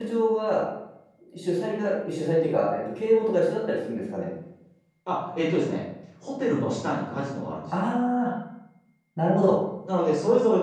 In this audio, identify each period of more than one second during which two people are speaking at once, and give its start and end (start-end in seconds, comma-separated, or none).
none